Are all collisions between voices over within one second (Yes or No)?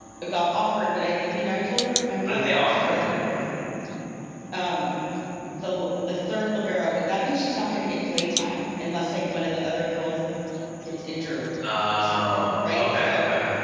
No